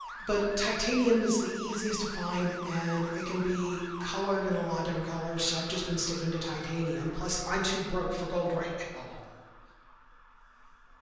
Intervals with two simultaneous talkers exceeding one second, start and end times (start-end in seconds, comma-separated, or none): none